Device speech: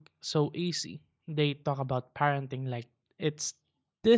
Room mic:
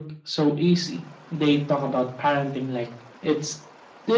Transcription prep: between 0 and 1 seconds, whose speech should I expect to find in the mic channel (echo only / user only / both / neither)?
echo only